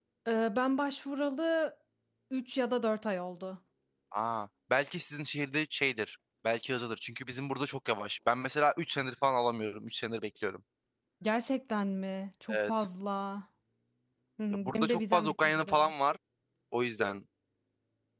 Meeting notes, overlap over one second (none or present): present